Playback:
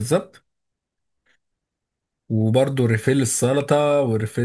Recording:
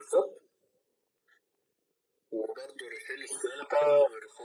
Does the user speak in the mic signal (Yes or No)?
No